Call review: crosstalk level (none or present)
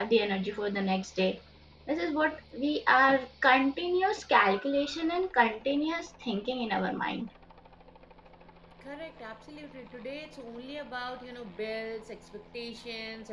none